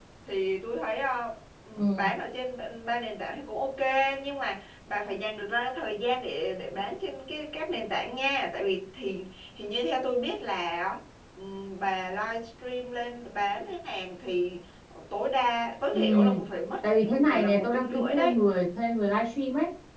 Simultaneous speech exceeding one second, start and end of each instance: 17.1-18.3

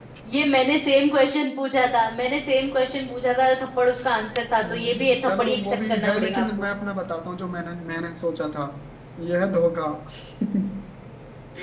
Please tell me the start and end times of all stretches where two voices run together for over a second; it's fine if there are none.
4.6-6.7

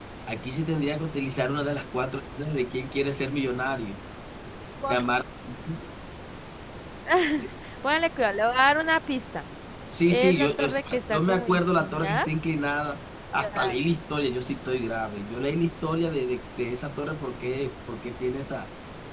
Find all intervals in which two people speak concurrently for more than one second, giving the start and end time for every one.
10.1-12.3

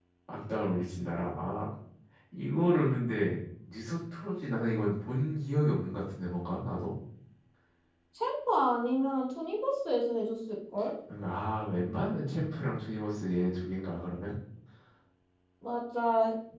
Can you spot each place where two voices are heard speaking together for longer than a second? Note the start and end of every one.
none

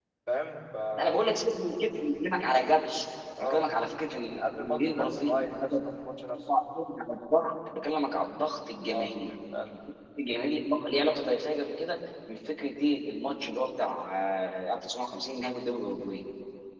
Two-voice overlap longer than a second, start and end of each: 4.5-5.8

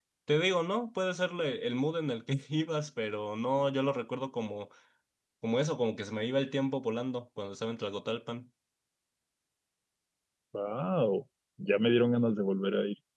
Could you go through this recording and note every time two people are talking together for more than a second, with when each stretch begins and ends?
none

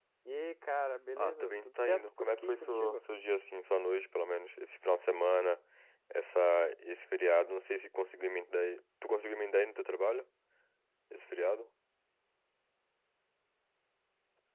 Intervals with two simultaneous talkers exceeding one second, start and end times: 1.2-3.0

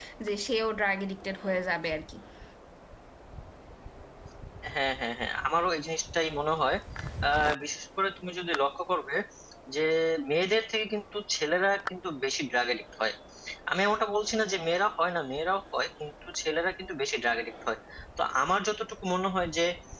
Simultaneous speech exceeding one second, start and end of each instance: none

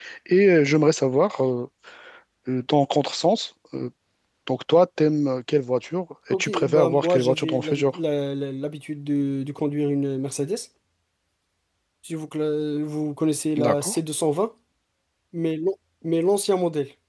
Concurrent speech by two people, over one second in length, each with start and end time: 6.3-8.0

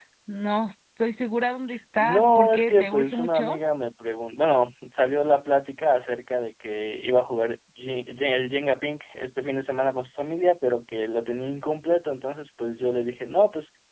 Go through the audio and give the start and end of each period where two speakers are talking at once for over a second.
2.0-3.6

